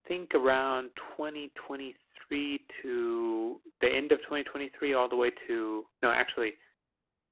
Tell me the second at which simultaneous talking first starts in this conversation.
none

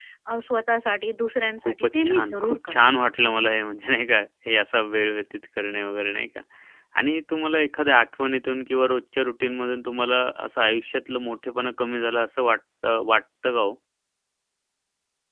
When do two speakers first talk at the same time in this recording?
1.6 s

